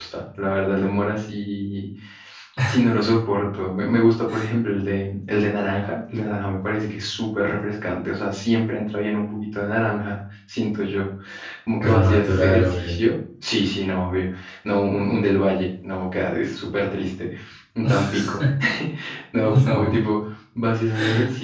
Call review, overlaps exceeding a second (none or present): present